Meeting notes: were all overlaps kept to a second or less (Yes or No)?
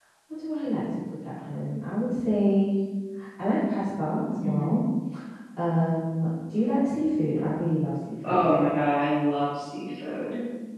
Yes